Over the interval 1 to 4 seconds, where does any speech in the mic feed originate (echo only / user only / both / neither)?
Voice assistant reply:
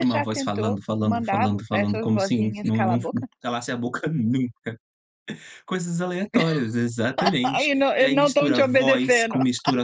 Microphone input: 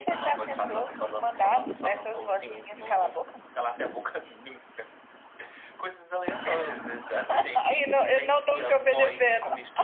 echo only